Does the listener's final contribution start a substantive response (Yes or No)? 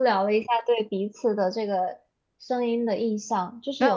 Yes